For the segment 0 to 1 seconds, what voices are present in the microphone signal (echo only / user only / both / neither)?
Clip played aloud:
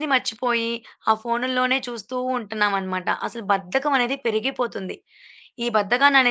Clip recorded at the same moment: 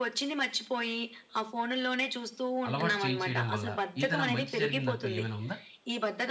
echo only